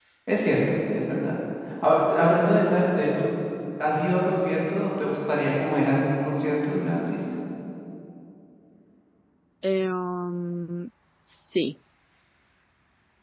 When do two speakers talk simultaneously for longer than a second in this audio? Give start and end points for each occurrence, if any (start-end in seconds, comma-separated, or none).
none